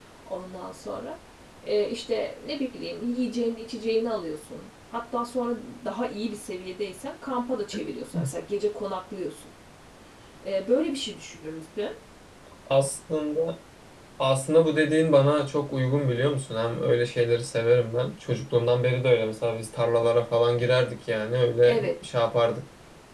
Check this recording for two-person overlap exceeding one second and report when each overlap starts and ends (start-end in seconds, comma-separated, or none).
none